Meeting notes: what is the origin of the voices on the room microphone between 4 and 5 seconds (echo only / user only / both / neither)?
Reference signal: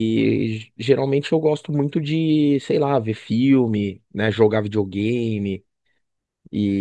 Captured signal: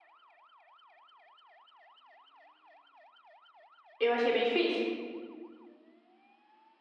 user only